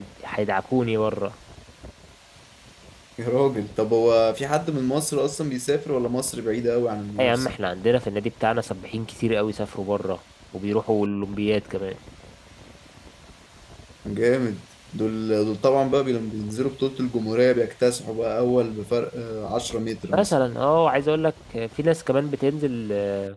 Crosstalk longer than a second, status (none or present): none